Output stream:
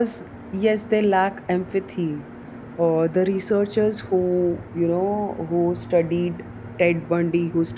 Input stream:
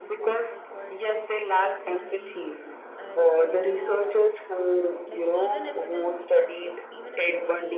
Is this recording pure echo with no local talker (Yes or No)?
No